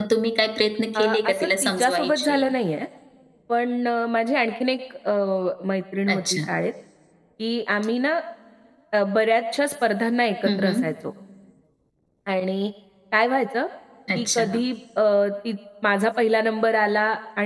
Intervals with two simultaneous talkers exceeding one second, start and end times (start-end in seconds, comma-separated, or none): 1.0-2.4